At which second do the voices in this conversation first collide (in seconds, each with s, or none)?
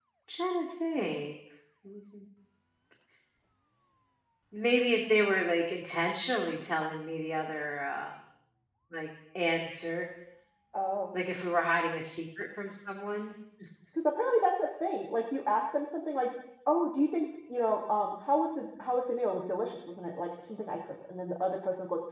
none